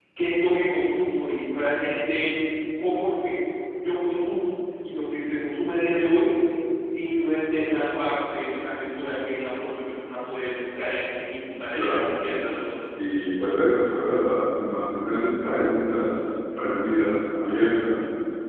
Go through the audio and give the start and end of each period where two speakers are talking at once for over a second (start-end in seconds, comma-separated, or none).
none